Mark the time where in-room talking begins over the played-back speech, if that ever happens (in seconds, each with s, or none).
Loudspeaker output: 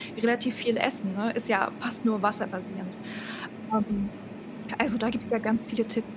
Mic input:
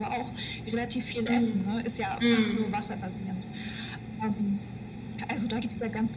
1.3 s